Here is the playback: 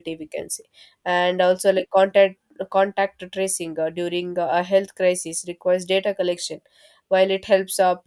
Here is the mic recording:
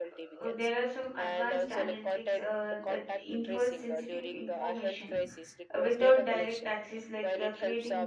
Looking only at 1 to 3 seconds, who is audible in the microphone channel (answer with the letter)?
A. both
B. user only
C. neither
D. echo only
A